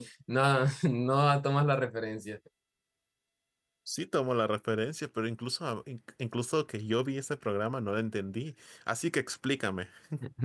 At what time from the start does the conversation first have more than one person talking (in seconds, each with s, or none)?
none